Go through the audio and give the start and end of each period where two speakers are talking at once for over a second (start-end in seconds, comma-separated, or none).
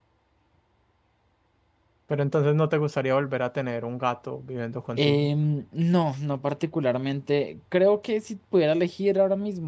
none